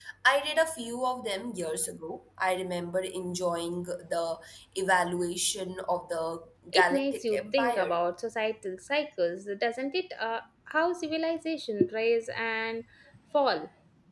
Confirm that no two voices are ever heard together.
No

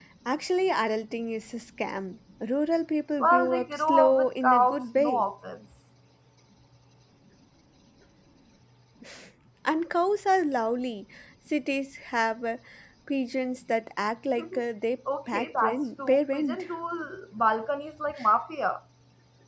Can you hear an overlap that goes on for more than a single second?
Yes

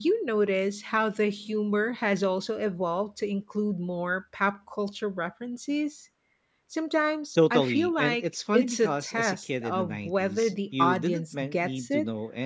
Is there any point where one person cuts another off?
Yes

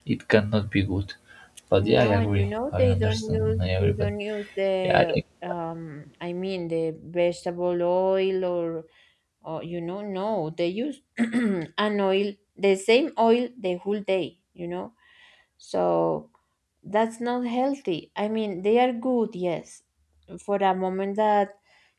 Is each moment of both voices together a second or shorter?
No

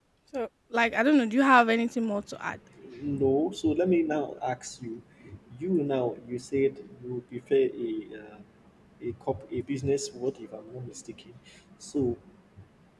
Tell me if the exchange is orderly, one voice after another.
Yes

